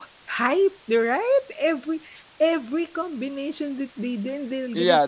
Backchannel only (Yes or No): No